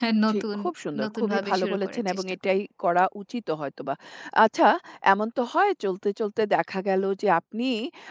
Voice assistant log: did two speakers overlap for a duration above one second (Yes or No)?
Yes